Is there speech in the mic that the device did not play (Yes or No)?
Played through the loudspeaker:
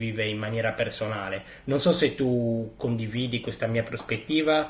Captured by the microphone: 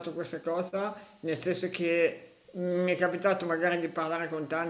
Yes